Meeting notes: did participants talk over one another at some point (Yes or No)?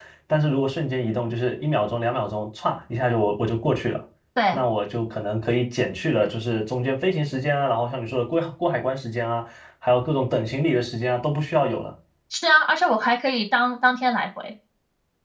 No